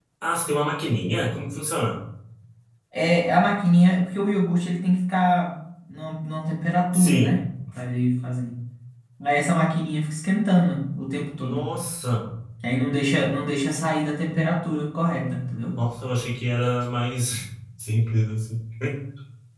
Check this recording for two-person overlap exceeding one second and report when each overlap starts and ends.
none

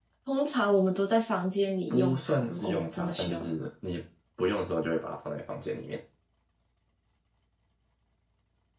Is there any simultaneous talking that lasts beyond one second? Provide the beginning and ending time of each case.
1.9-3.6

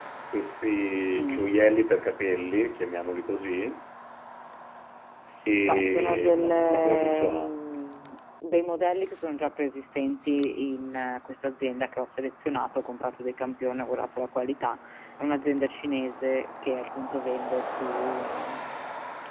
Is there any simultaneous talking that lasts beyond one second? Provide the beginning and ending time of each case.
5.7-7.5

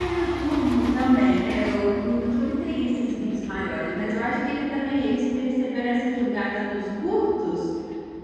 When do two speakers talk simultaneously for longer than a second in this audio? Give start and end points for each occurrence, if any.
none

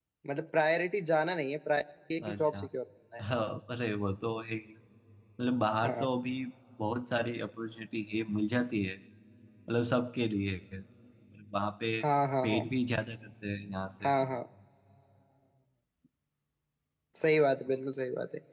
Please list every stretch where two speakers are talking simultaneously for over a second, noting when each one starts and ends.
none

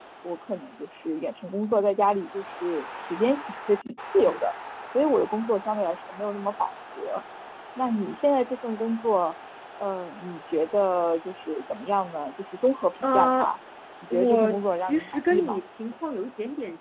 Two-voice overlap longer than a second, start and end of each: 14.1-15.6

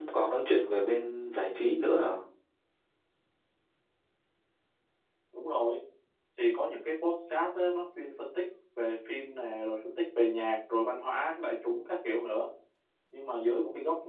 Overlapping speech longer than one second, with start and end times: none

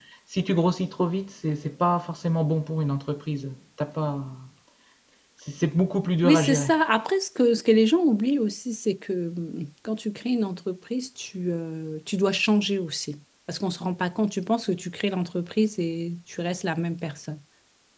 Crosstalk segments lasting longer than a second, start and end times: none

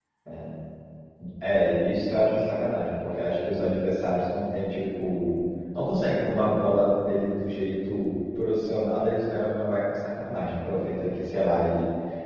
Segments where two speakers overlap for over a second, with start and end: none

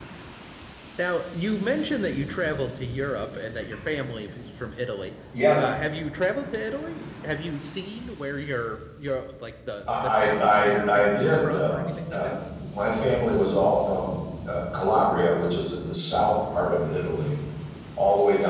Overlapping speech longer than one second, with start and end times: 9.9-12.3

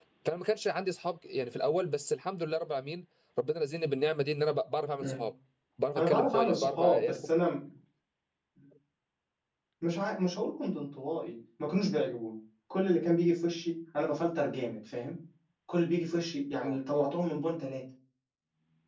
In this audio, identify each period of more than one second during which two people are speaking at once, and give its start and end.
6.0-7.3

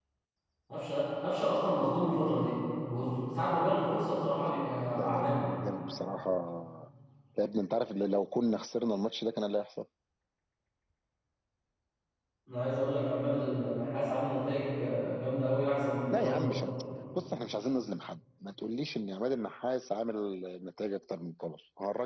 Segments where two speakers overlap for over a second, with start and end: none

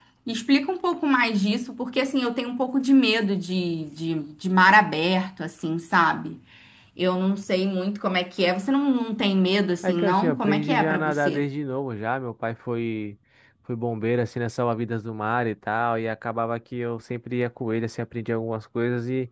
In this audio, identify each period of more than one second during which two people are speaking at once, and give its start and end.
9.8-11.4

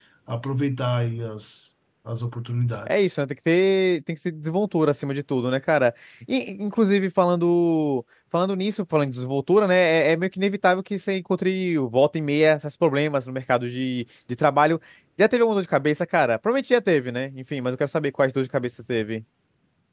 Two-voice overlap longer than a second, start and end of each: none

